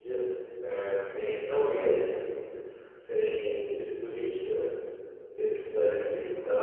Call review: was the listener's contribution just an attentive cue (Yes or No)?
Yes